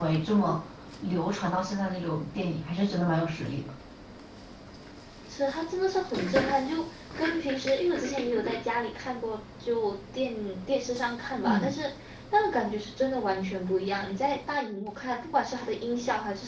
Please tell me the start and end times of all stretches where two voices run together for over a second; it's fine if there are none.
none

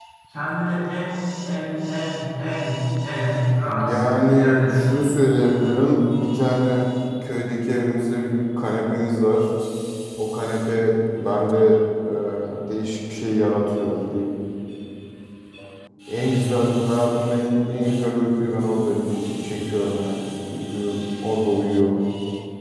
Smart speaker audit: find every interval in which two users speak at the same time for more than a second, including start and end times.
3.6-5.0

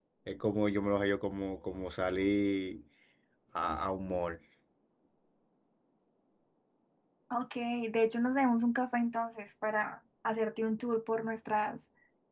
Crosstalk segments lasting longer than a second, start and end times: none

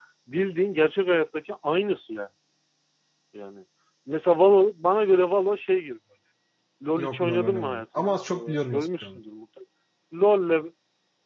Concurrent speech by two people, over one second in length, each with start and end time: 7.0-9.2

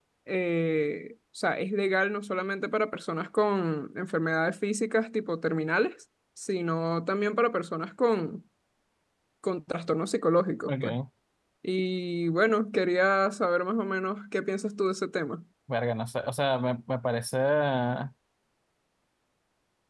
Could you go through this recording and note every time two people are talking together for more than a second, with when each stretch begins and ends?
none

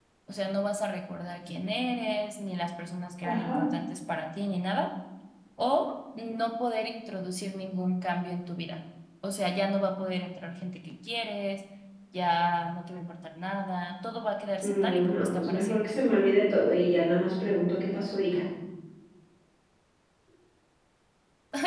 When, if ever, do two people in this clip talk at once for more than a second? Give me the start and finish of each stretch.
14.6-15.9

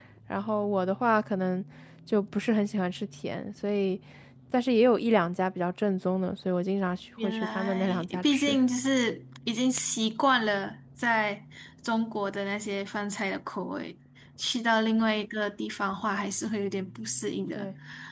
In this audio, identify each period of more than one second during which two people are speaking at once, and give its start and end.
7.2-8.6

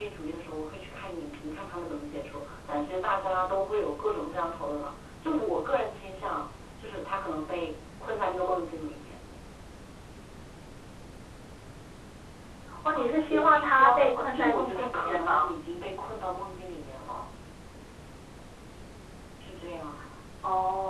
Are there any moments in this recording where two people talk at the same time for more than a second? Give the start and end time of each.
12.9-15.5

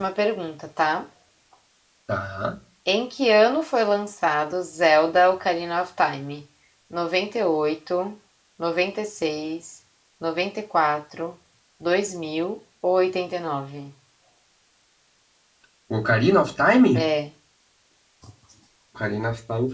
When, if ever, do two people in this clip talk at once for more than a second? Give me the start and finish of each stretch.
none

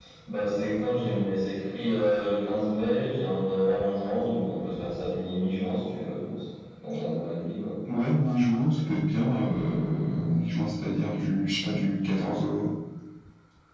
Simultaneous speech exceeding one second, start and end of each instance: none

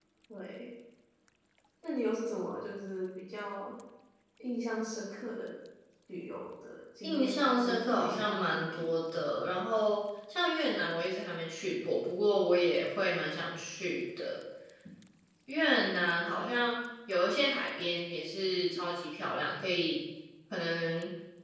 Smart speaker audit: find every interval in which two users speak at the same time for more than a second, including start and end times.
7.0-8.9

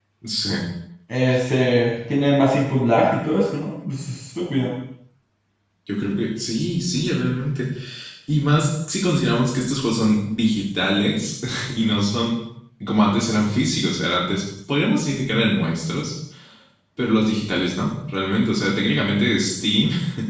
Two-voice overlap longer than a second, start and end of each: none

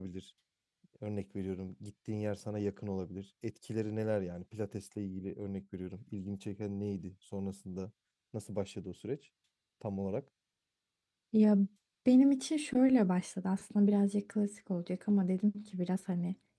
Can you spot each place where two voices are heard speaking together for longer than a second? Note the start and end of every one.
none

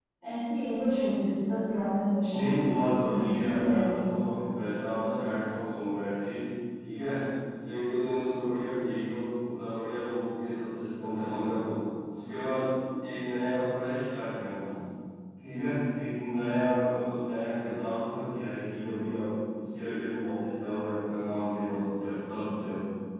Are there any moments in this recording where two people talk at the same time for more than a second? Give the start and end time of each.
2.3-4.1

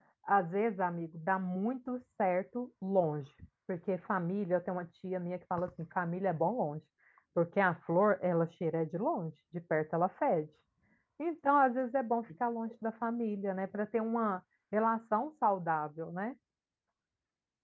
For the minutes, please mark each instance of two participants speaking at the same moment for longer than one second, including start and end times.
none

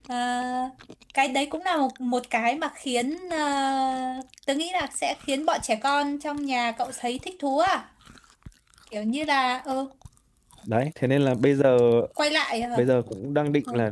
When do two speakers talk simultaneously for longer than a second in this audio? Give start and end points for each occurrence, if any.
none

